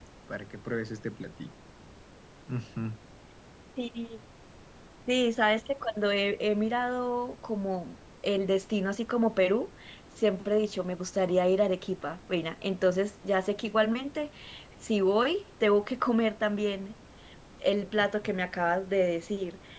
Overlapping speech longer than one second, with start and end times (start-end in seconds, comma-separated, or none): none